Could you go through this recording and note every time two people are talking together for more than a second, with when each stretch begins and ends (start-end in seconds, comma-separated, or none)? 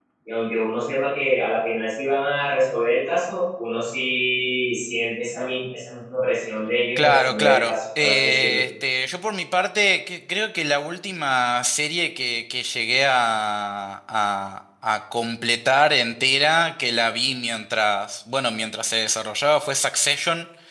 7.0-8.6